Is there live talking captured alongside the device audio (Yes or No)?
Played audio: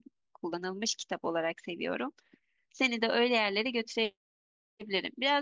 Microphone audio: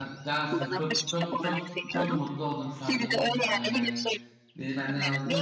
Yes